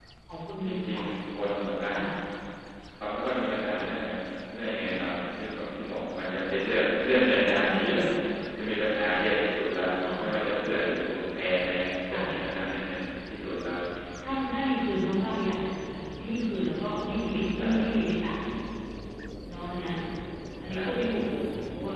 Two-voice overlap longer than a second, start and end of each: none

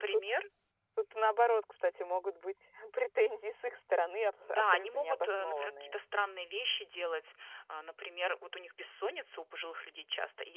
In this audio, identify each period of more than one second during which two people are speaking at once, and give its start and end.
4.4-6.0

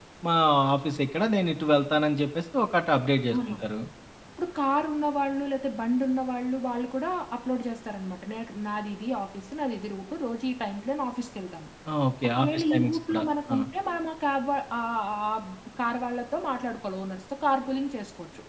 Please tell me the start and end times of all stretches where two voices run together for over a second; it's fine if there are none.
12.3-13.5

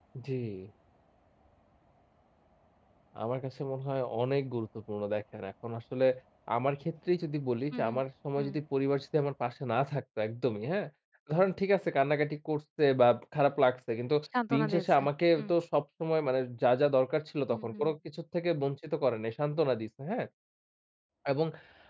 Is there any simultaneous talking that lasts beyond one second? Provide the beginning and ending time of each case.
none

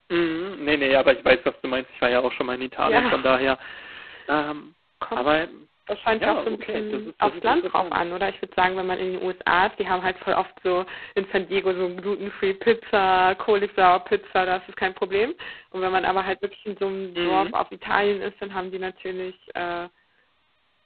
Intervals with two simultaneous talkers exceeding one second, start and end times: 6.1-8.1

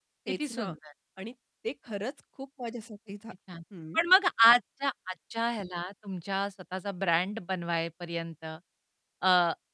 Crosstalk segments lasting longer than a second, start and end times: none

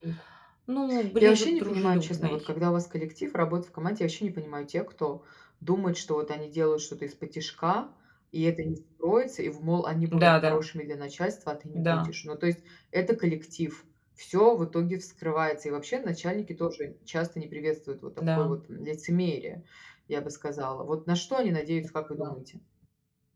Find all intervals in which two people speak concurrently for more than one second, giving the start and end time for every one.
1.2-2.4

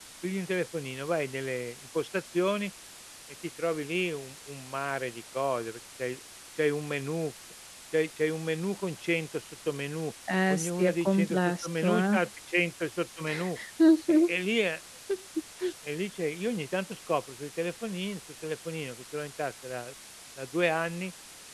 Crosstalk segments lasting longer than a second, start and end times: 10.5-12.3

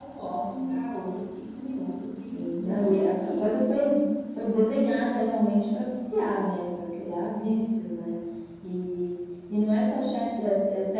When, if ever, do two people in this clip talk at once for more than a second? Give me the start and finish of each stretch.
2.3-3.7

